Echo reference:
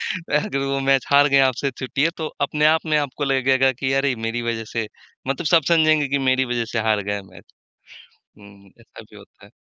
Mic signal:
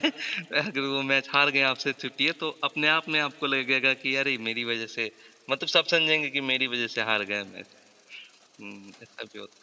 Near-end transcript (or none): none